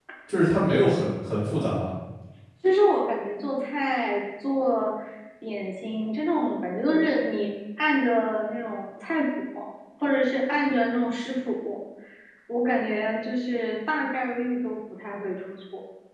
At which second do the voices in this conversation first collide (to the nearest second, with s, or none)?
none